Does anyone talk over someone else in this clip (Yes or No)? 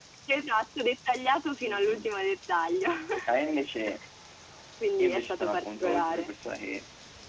Yes